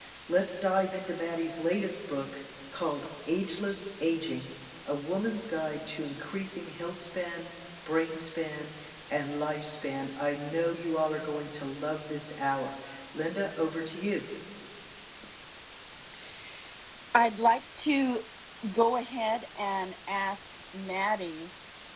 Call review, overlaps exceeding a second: none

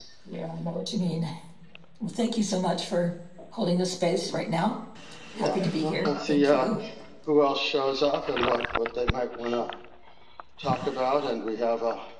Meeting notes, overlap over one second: present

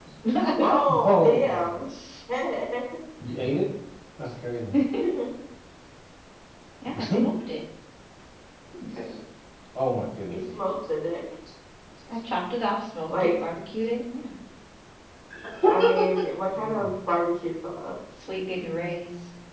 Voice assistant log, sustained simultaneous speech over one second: present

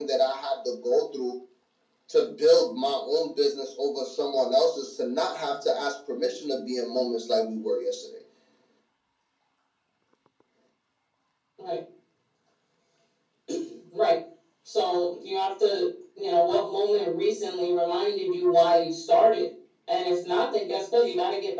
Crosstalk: none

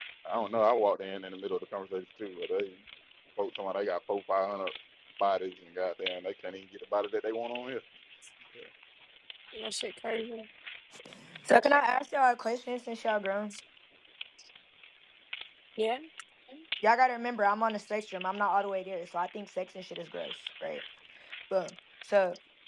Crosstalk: none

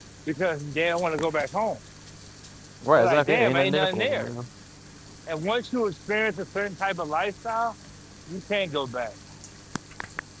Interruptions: present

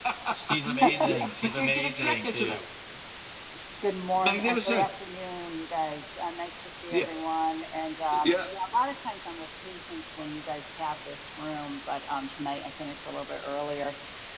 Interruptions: present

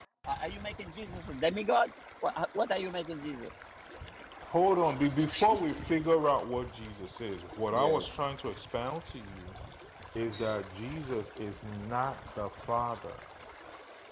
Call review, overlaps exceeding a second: none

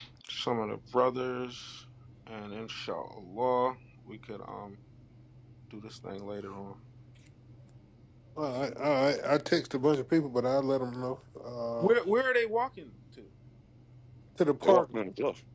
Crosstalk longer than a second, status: none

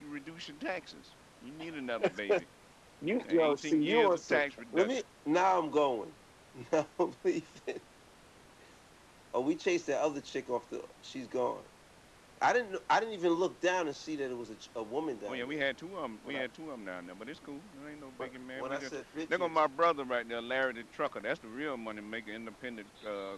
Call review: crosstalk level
present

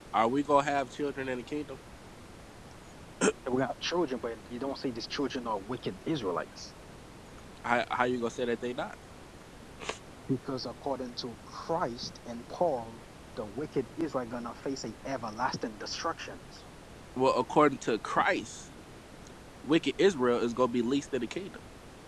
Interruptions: none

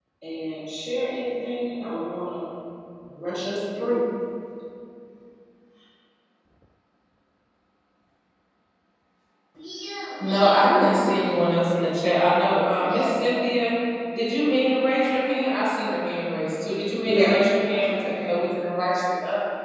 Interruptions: present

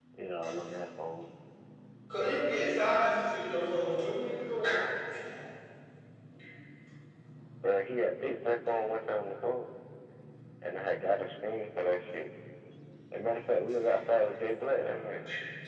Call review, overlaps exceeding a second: none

